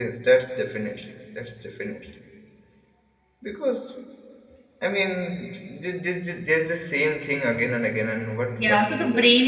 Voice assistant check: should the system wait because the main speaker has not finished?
No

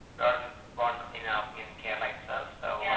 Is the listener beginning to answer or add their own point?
Yes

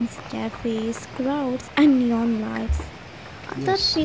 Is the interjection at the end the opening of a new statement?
No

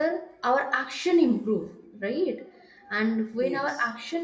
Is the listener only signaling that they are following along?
Yes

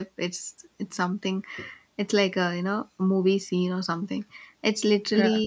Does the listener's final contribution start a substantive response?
No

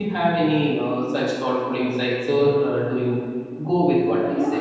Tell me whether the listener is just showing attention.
No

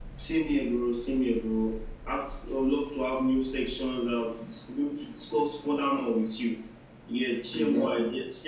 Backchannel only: Yes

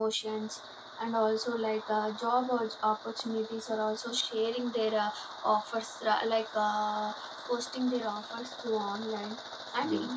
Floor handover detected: No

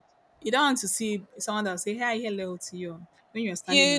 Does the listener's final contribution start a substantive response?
Yes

